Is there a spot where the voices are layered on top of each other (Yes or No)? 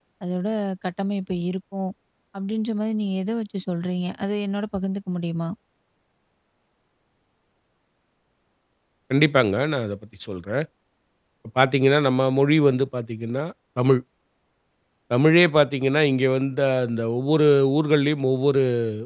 No